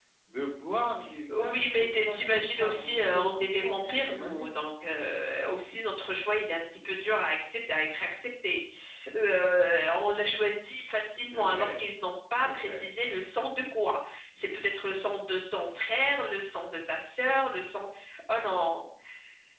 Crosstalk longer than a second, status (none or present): present